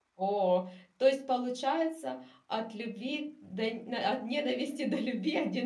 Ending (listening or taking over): taking over